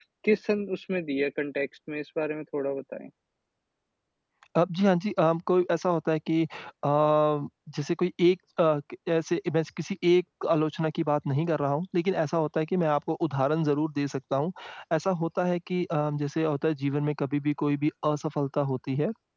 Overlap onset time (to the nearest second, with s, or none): none